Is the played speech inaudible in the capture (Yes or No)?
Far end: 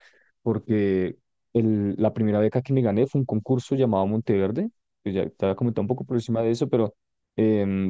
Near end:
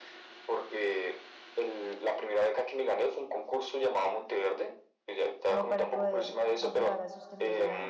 No